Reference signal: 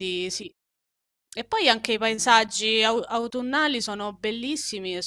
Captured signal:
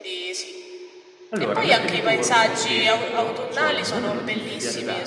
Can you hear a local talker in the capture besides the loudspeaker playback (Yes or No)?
Yes